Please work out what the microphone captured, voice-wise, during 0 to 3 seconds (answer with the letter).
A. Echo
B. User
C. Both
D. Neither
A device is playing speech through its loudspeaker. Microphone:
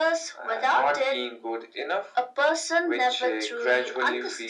A